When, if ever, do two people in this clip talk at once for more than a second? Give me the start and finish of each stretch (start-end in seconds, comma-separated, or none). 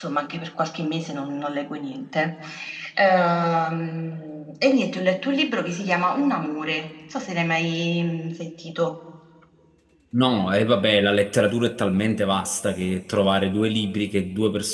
none